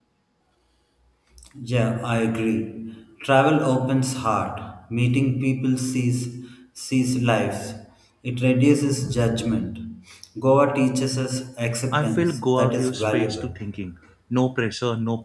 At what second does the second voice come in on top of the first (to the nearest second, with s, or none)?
12 s